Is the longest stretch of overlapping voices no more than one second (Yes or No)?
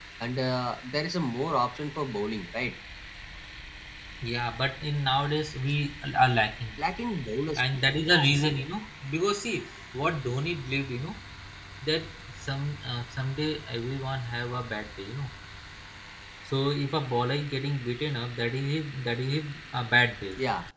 Yes